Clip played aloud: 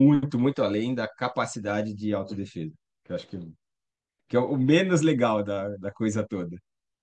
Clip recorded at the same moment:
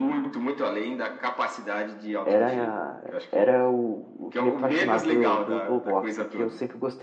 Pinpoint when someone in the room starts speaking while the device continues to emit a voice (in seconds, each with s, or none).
2.2 s